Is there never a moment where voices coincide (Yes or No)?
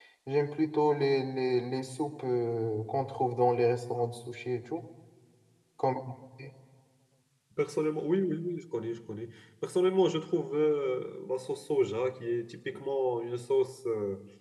Yes